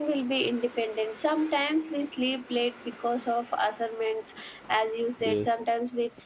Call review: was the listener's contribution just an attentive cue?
Yes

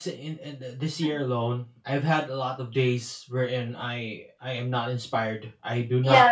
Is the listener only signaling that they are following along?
No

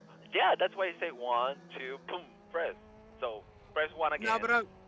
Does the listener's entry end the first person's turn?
Yes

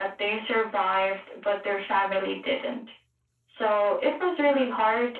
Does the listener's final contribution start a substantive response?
No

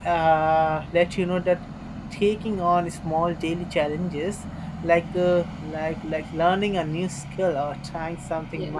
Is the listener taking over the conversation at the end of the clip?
No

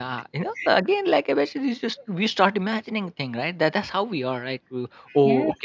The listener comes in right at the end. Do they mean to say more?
No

